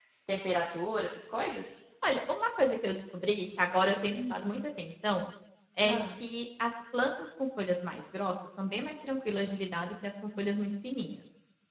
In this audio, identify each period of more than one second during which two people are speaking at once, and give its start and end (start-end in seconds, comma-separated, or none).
none